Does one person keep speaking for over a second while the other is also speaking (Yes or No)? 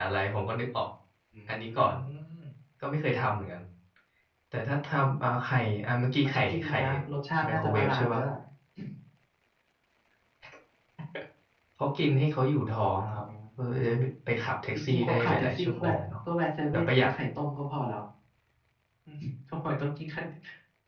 Yes